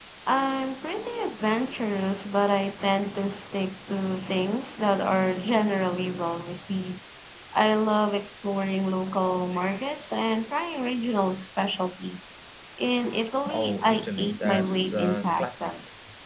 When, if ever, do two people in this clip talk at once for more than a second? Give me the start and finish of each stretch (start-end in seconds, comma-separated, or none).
13.5-15.7